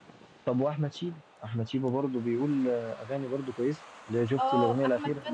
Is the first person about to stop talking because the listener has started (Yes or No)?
Yes